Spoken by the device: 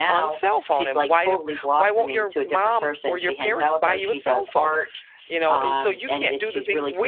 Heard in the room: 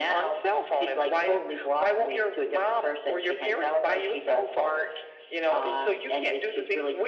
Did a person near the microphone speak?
No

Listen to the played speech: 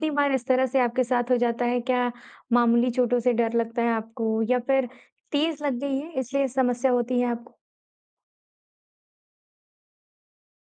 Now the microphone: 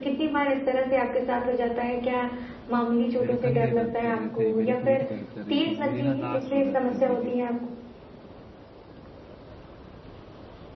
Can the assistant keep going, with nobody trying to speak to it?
No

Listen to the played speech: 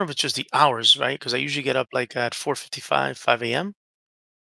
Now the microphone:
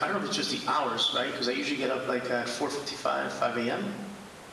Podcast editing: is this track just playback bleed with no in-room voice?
Yes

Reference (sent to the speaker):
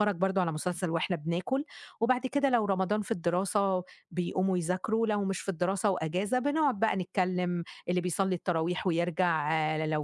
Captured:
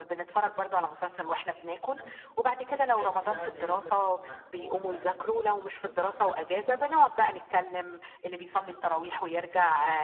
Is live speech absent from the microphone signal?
No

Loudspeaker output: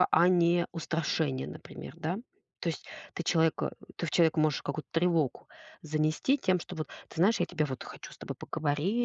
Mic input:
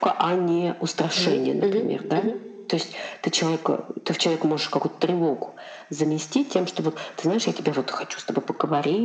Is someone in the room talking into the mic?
Yes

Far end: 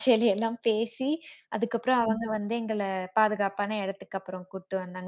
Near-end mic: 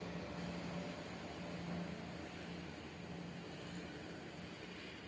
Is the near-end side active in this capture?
No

